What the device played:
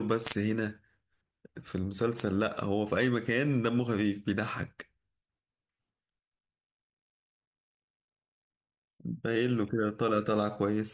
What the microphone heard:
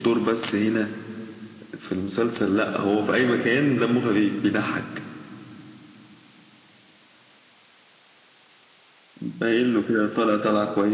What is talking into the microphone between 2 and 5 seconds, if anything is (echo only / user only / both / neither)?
echo only